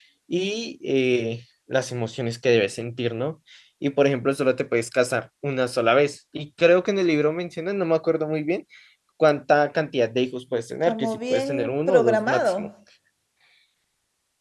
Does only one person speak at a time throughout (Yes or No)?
No